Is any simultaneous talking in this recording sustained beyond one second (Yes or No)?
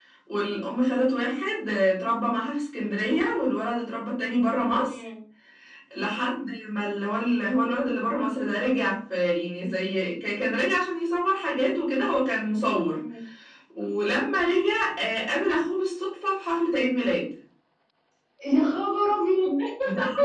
No